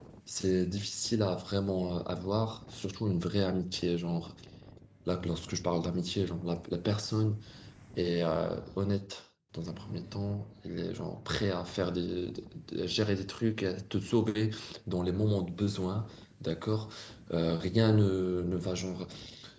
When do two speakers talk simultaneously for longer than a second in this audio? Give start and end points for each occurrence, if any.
none

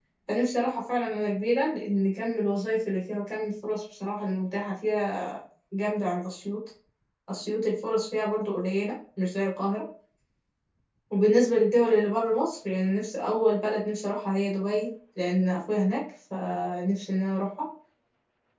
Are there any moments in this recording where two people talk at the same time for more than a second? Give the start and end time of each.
none

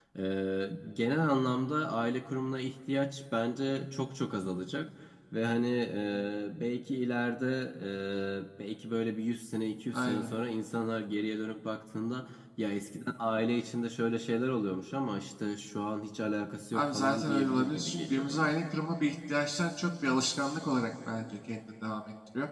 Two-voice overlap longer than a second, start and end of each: 16.7-18.5

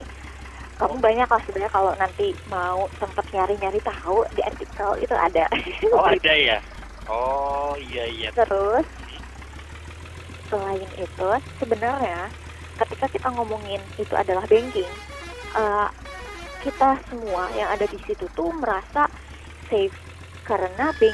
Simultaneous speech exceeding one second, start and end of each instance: none

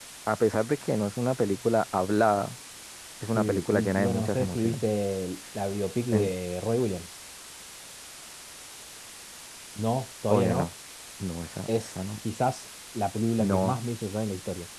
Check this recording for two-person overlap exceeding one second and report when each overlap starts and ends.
3.4-4.8

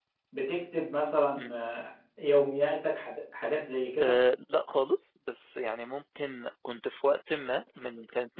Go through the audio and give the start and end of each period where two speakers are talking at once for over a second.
none

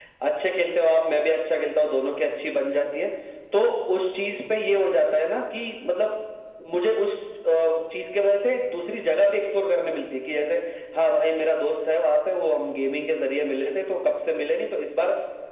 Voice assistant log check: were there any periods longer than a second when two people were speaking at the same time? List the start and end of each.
none

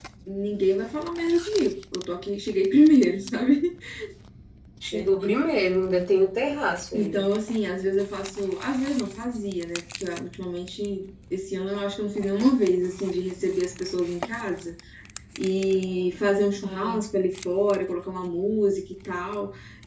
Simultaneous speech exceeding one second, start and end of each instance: none

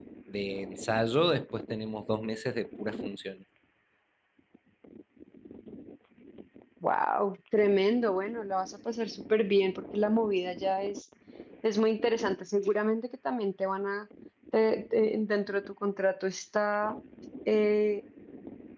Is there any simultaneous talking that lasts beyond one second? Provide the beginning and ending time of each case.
none

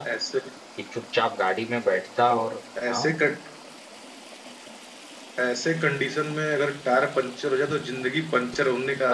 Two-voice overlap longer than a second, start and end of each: none

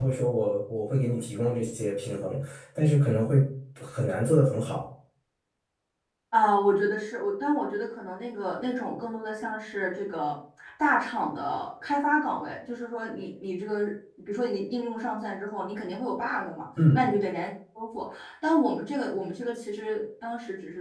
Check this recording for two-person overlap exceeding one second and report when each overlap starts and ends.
none

